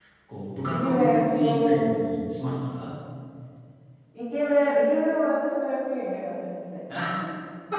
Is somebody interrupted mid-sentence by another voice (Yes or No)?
Yes